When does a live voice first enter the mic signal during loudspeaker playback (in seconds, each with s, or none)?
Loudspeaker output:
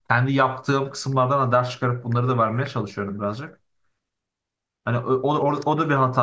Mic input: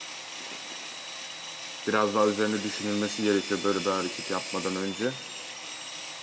1.9 s